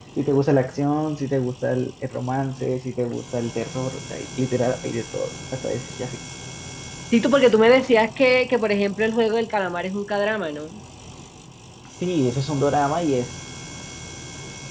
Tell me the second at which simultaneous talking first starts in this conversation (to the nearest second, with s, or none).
none